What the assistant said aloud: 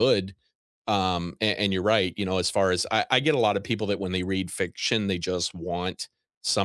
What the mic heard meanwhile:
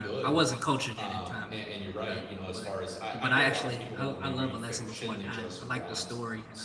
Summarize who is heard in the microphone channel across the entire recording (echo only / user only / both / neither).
both